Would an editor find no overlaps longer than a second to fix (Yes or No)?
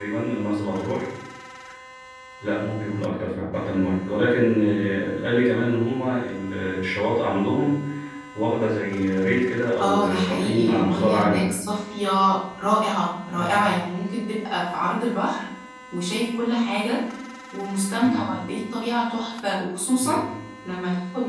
No